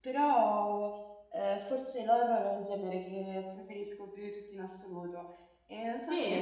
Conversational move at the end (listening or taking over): listening